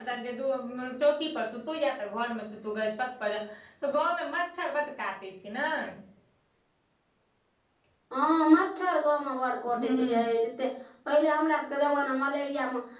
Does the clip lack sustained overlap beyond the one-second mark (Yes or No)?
Yes